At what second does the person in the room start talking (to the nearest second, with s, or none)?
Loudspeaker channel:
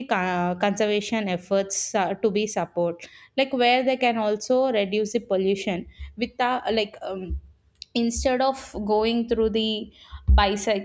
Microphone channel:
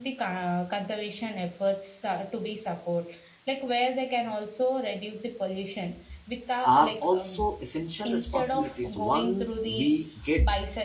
7 s